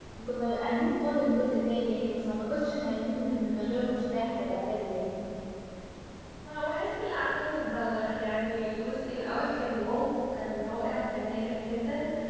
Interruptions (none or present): none